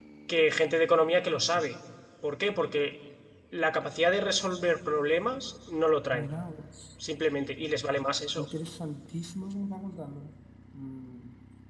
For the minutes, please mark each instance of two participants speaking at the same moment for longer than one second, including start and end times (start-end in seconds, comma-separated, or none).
none